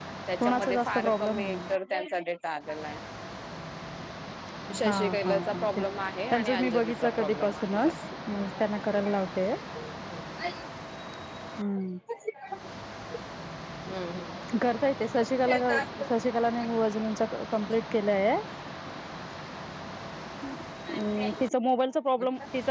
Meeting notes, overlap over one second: present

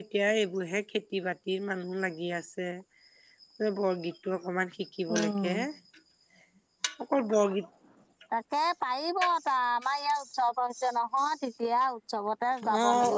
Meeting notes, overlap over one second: none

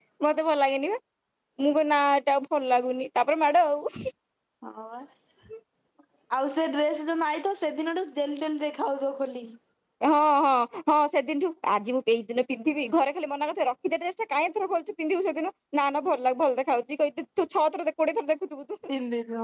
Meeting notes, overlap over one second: none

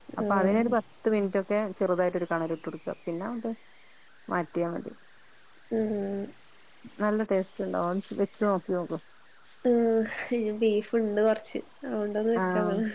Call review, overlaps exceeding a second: none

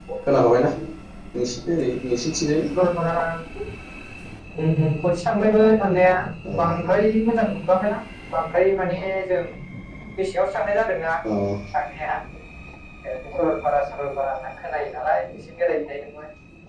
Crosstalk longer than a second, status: none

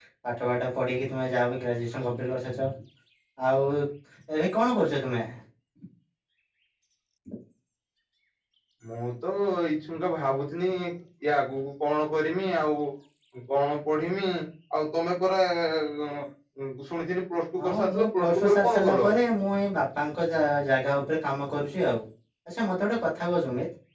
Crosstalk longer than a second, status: present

